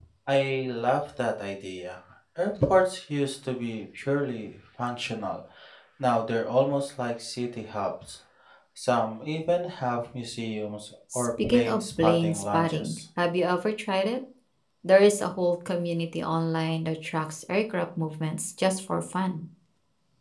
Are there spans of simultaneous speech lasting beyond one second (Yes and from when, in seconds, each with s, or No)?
Yes, from 11.1 s